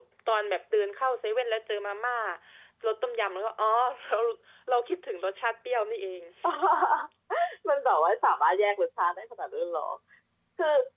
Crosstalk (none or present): none